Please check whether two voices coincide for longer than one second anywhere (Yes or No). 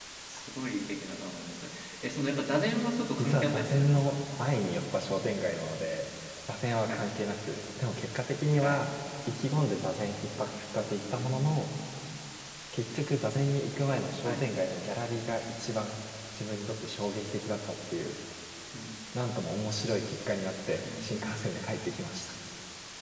Yes